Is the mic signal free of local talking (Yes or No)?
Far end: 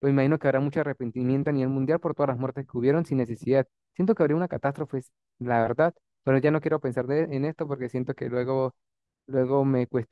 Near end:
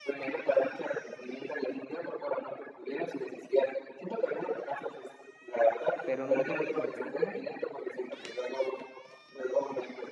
No